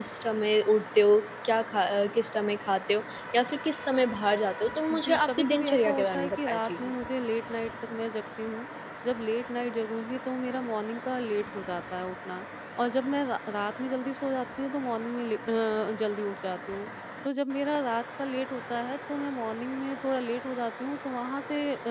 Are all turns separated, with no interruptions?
No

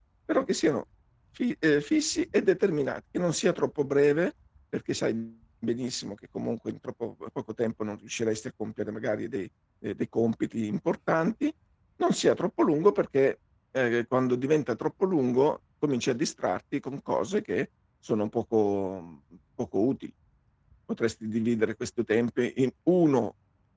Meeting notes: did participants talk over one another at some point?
No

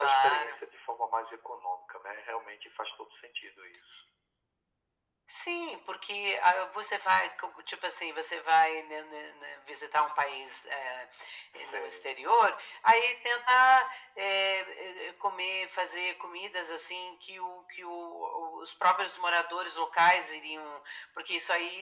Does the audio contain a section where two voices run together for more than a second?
No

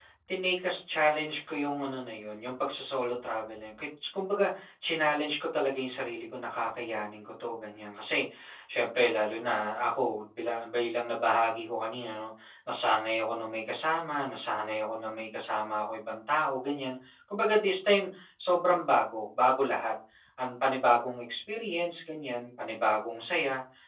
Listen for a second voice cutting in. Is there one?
No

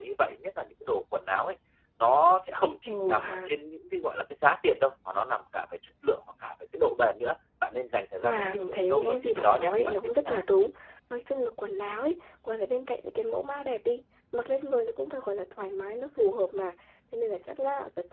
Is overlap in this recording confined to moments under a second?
No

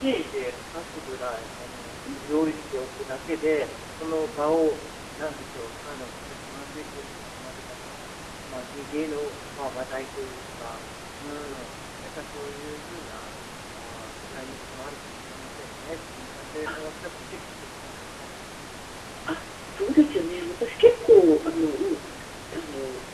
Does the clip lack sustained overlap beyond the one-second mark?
Yes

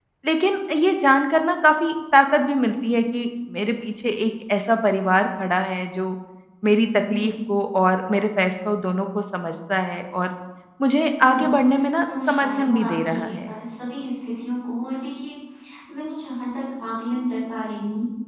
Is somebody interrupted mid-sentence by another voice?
Yes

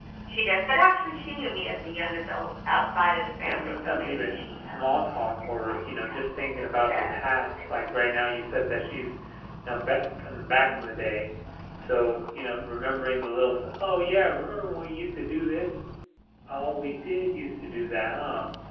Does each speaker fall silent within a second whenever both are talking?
No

